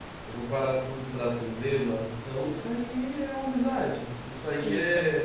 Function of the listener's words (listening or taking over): listening